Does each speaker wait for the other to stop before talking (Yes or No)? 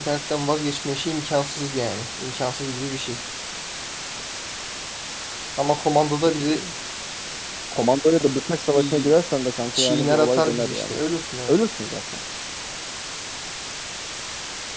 No